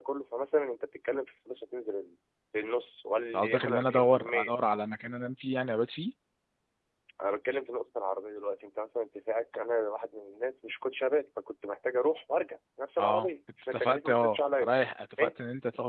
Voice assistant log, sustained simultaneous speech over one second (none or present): present